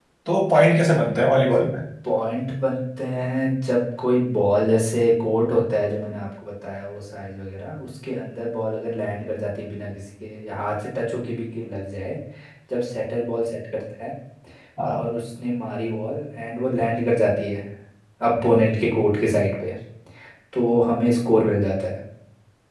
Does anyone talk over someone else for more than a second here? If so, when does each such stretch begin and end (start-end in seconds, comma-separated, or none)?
none